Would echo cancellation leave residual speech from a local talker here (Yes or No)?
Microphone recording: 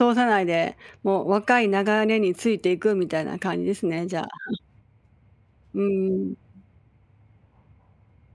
Yes